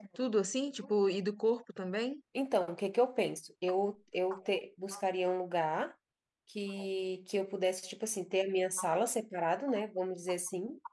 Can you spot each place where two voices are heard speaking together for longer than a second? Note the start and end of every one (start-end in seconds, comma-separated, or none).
none